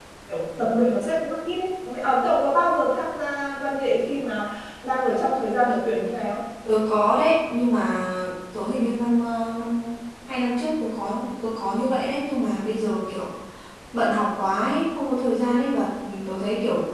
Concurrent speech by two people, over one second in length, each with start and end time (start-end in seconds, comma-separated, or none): none